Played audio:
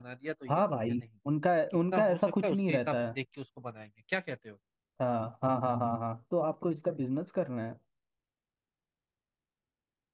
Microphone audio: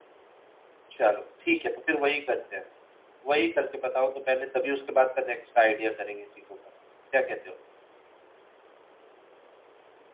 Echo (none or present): none